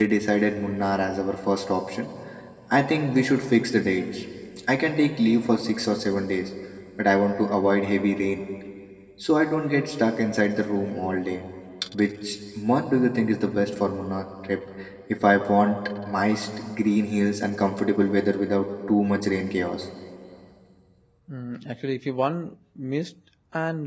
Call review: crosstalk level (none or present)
none